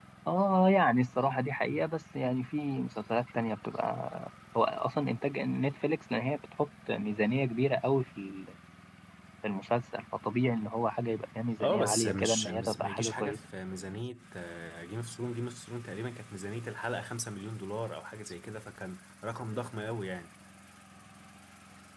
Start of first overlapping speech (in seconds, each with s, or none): 11.6 s